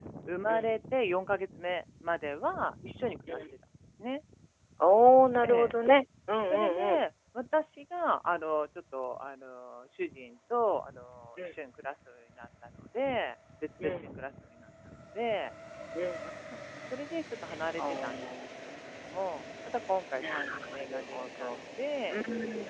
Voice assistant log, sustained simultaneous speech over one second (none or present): present